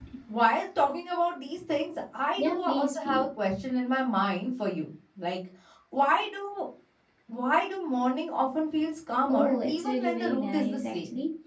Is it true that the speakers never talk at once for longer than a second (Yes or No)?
No